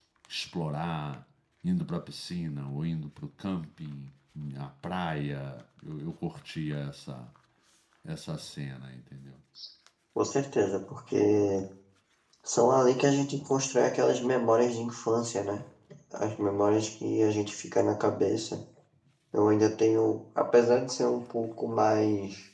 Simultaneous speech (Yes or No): No